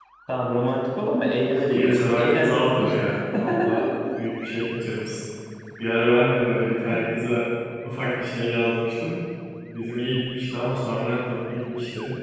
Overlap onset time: 1.7 s

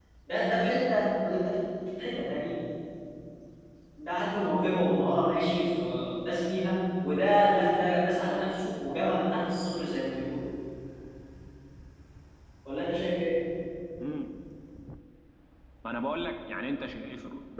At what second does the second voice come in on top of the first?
none

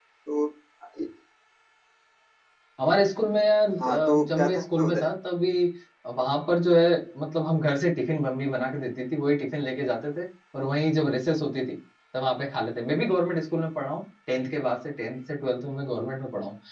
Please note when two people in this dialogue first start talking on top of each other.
3.8 s

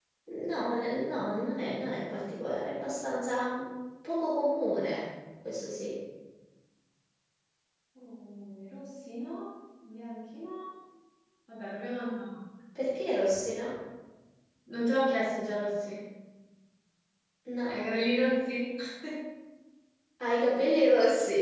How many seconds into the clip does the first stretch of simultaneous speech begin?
none

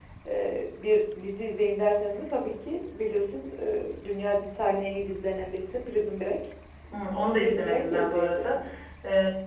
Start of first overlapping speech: 7.4 s

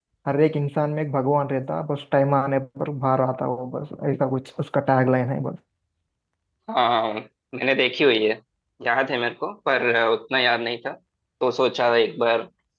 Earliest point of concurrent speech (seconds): none

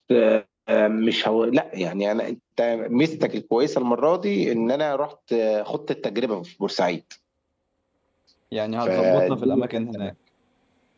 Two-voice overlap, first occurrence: 8.8 s

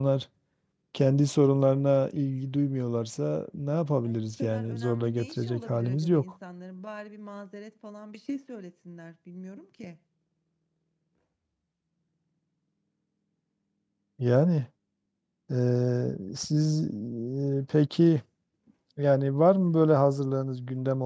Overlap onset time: 4.1 s

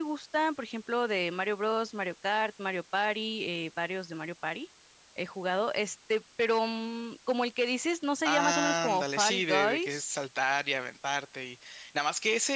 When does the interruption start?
8.2 s

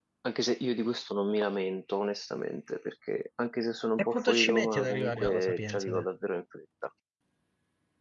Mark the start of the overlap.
4.0 s

